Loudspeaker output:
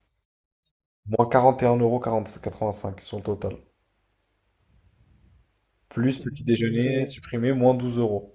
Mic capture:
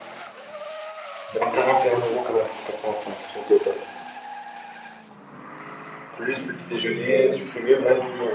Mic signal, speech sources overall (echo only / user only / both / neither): echo only